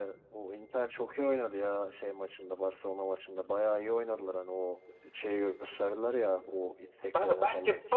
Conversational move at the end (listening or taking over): taking over